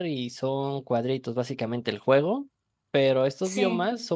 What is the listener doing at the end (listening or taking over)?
listening